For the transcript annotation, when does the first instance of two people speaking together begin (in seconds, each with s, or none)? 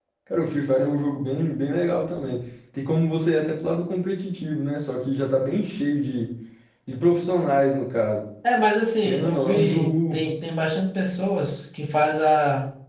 9.0 s